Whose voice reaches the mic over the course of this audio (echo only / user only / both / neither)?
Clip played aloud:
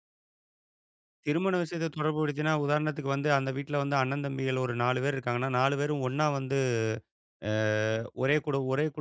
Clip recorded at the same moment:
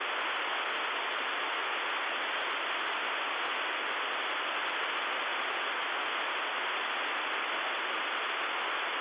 neither